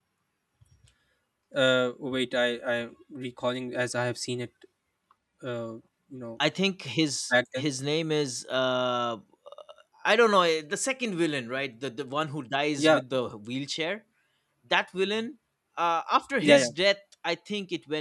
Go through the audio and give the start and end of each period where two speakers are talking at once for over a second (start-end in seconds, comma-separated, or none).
none